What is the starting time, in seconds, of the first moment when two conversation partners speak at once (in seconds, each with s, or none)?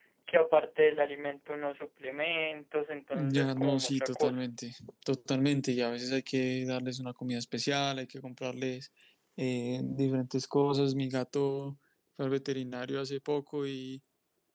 3.1 s